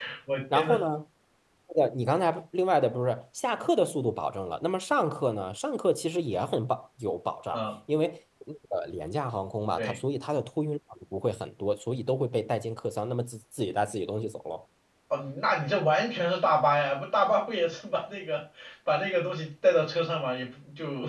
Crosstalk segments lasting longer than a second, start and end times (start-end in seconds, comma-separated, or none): none